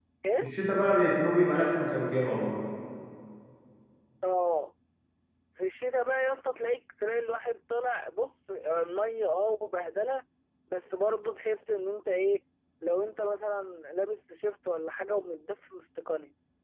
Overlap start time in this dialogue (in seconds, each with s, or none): none